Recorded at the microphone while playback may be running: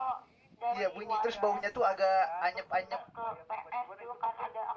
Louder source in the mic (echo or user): user